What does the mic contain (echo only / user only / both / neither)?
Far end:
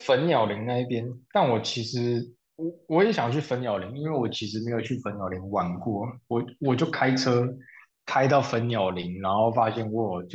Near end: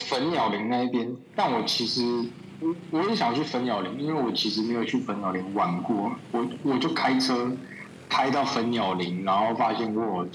echo only